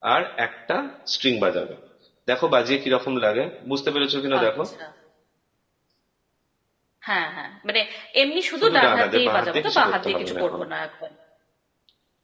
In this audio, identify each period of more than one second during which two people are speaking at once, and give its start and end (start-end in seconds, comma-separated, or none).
8.6-10.6